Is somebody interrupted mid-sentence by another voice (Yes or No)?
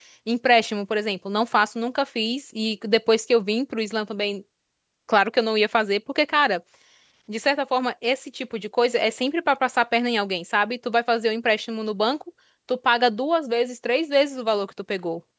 No